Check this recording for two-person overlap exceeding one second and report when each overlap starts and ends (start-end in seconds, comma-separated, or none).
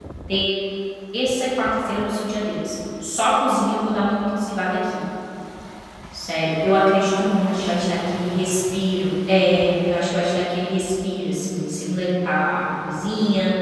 7.2-8.4